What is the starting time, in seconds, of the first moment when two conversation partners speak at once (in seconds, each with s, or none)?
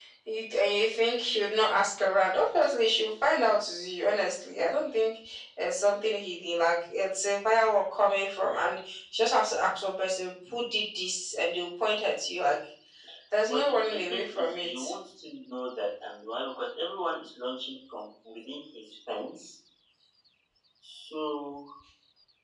13.5 s